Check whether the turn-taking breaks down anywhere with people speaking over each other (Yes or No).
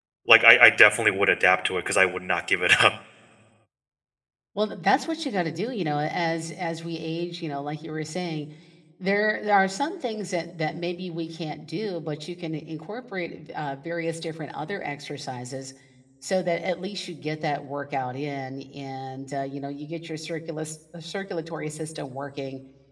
No